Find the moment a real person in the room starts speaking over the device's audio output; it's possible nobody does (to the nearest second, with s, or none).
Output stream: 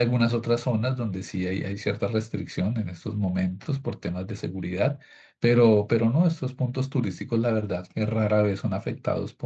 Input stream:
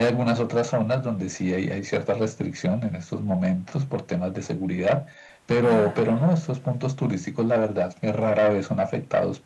6 s